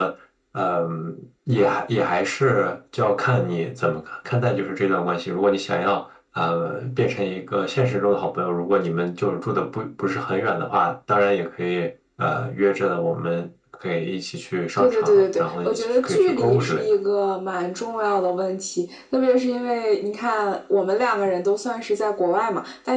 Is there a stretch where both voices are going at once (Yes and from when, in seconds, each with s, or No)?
Yes, from 14.8 s